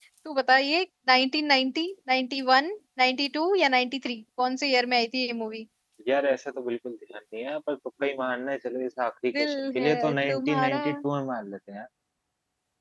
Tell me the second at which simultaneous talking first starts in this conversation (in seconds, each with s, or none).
9.3 s